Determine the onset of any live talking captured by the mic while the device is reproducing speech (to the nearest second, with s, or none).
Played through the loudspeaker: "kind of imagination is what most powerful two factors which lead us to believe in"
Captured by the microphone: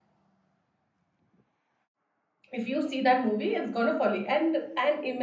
3 s